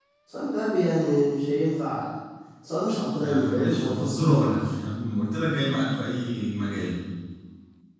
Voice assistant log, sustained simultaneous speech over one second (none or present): present